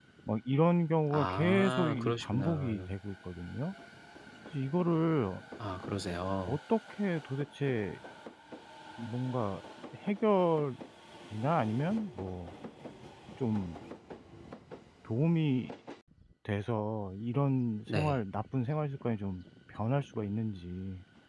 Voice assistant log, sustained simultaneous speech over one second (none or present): present